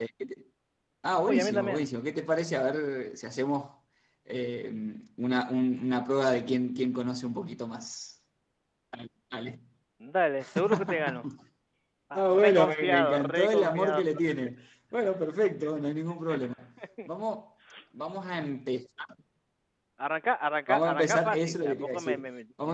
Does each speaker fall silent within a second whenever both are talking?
No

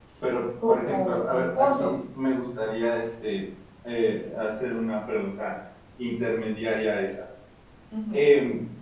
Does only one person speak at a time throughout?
No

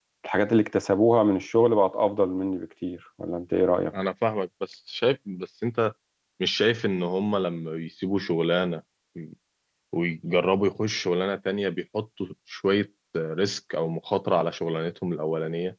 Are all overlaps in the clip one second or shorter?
Yes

